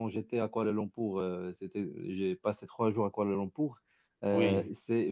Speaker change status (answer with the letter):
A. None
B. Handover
A